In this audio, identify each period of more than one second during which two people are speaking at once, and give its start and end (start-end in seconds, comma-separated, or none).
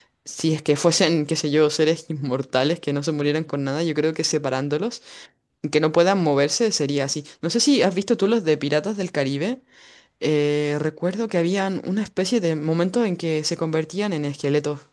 none